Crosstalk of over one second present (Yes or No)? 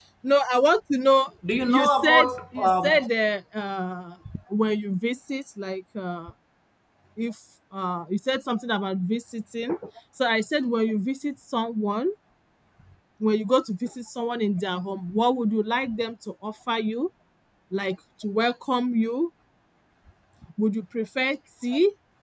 Yes